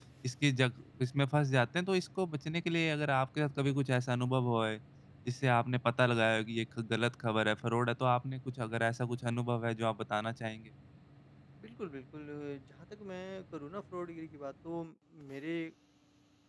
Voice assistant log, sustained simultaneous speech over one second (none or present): none